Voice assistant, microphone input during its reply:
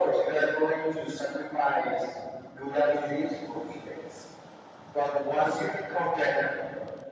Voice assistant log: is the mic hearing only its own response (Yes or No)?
Yes